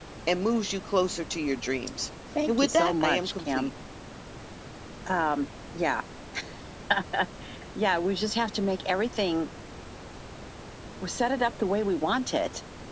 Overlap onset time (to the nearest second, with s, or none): 2 s